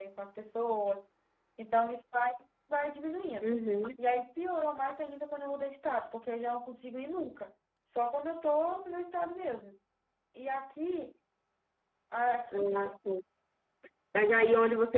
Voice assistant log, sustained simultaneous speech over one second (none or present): none